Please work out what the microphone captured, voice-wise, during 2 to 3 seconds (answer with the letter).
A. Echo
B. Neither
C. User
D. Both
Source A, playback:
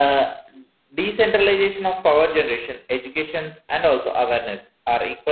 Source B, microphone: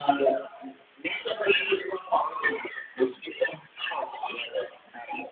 A